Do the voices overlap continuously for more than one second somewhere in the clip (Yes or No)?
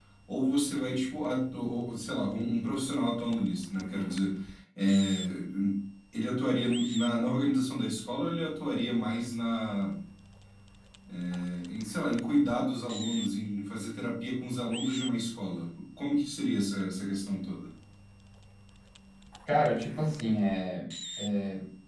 No